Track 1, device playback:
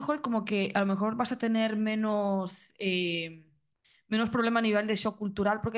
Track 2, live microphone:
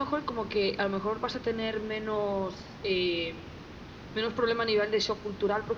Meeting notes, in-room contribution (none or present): none